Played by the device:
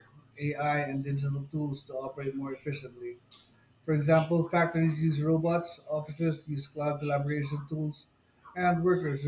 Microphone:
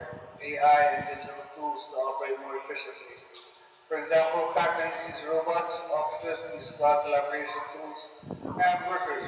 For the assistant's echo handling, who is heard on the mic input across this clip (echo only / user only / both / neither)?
echo only